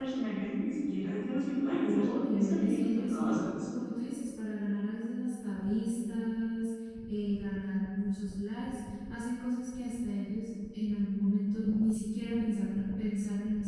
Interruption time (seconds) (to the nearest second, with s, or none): 2 s